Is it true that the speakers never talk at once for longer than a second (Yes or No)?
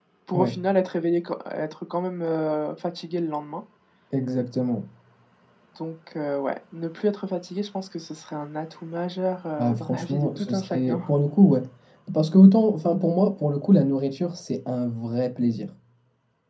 No